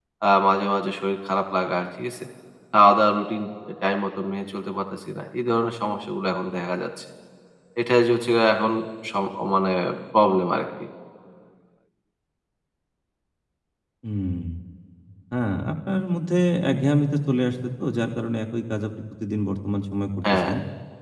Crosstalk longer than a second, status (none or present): none